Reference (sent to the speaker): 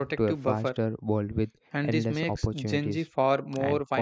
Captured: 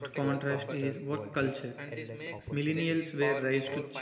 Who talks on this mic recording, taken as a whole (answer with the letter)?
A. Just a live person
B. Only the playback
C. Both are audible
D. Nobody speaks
C